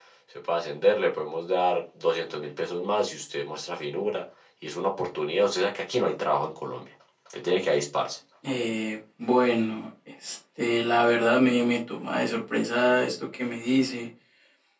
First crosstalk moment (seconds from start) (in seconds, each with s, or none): none